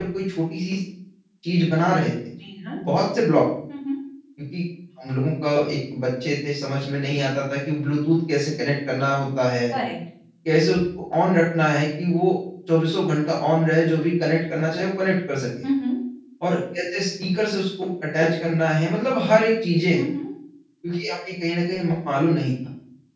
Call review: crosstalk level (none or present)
none